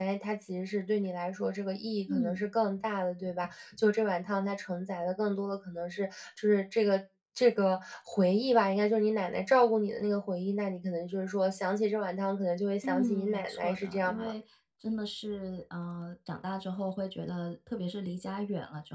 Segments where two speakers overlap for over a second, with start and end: 12.8-14.3

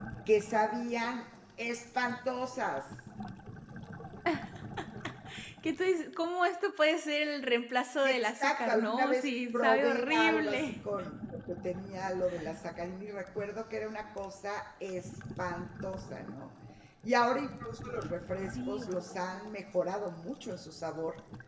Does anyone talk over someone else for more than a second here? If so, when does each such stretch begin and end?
8.0-10.7

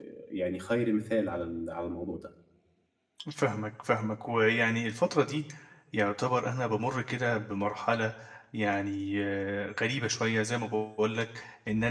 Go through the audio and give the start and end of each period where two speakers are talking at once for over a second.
none

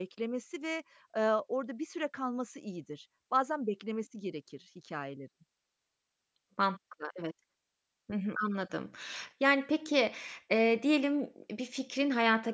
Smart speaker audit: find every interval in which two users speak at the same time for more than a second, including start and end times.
none

